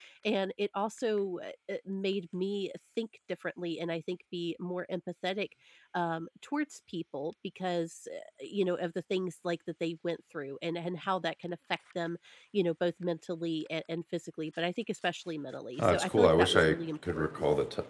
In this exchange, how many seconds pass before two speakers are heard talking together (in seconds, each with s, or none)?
15.8 s